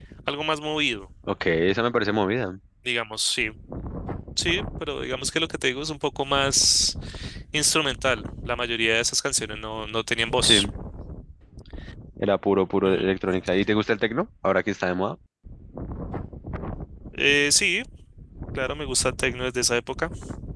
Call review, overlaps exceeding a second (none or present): none